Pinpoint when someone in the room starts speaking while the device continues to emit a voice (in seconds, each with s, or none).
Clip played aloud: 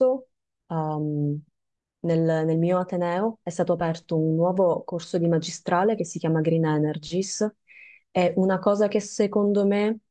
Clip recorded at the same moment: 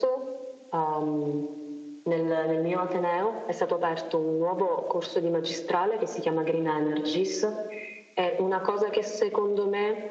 none